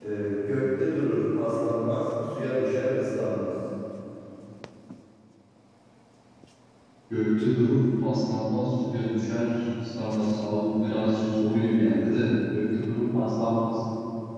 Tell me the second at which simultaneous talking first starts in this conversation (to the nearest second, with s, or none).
none